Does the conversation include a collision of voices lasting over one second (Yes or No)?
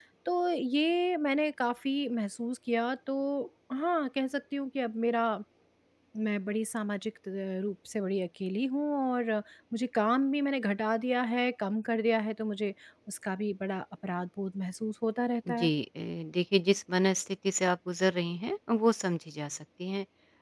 No